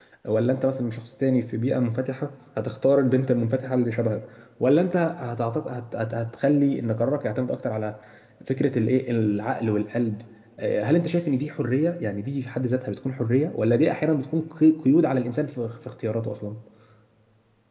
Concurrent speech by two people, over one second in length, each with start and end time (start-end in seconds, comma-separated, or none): none